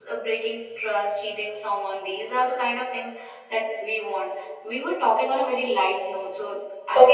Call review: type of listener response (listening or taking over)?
taking over